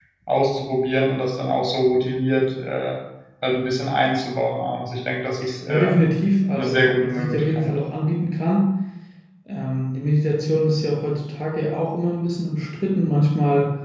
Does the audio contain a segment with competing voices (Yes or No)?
Yes